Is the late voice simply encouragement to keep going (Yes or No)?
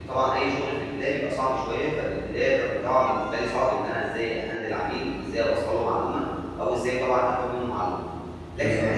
Yes